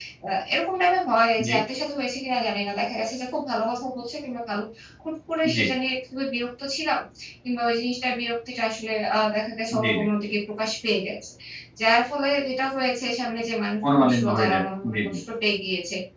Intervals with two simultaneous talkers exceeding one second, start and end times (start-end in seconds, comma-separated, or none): 13.8-15.2